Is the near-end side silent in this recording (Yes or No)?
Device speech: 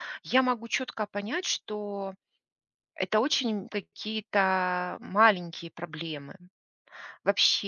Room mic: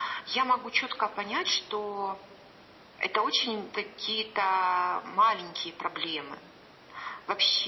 Yes